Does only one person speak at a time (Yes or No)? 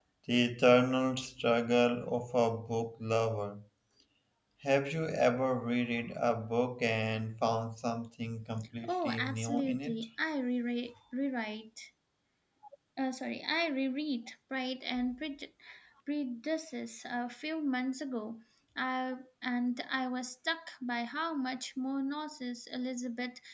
No